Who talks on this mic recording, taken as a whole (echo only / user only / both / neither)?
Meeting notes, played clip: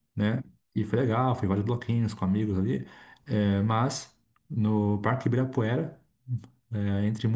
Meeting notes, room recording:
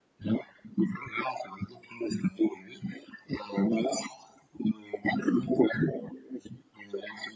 echo only